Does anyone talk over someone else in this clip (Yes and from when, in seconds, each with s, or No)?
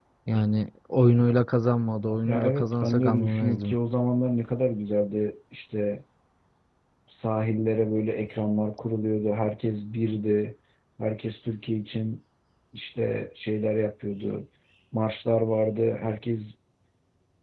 Yes, from 2.2 s